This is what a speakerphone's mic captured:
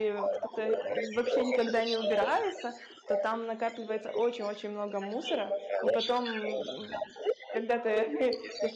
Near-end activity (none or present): present